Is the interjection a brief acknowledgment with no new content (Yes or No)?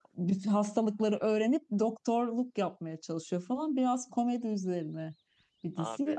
Yes